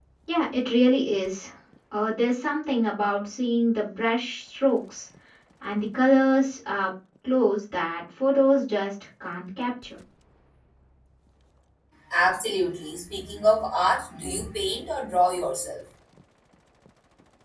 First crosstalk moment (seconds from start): none

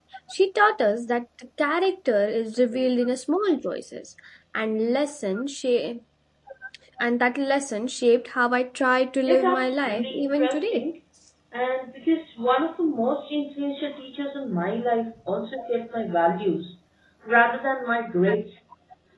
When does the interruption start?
9 s

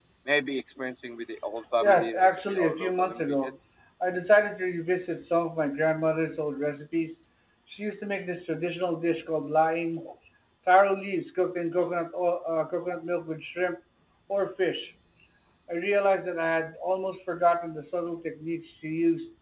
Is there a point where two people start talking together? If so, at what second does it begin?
2 s

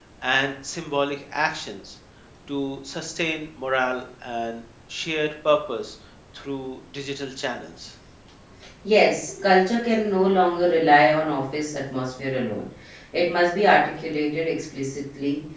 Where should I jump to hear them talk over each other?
none

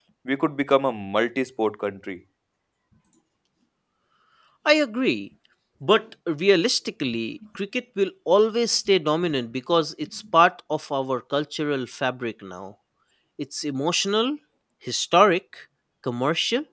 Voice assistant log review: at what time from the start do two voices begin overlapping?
none

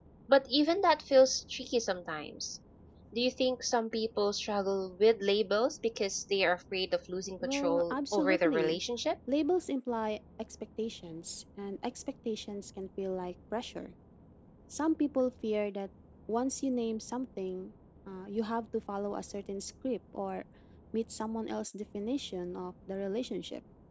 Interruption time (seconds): 7 s

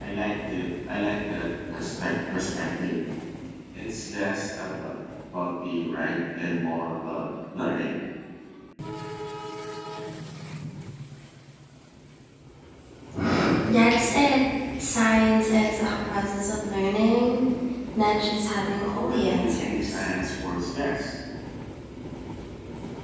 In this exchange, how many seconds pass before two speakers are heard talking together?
19 s

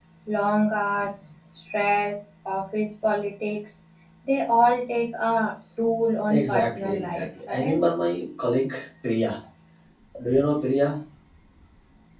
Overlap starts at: 6 s

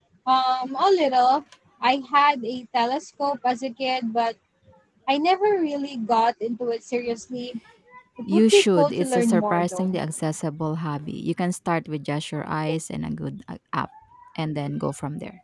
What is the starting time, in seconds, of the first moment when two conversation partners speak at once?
8 s

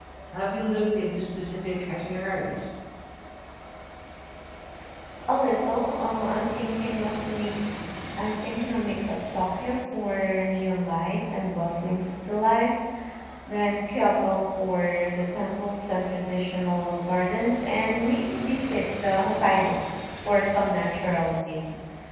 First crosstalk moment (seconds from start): none

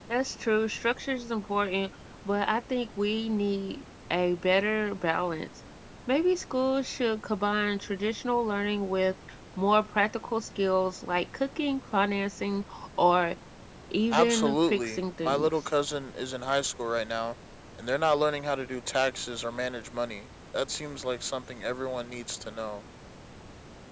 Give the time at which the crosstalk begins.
14 s

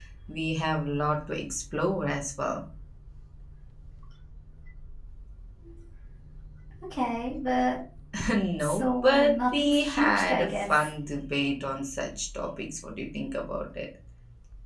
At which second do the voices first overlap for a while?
9 s

